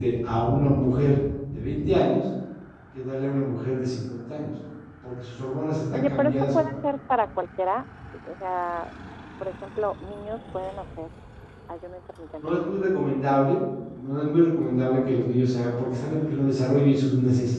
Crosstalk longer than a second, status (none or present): none